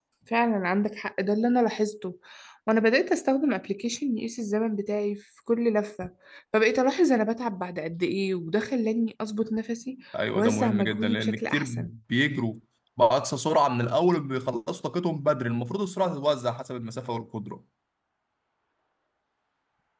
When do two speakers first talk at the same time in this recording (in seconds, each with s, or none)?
10.3 s